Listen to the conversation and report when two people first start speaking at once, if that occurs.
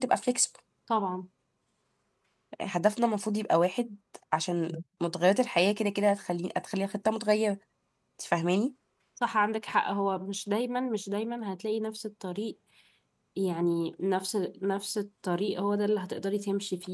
none

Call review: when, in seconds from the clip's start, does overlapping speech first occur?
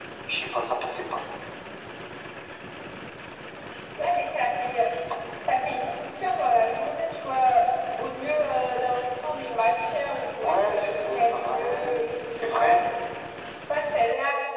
10.4 s

